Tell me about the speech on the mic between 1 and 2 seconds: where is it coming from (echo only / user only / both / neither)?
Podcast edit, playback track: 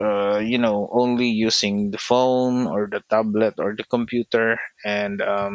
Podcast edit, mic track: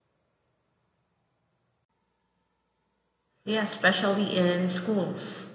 neither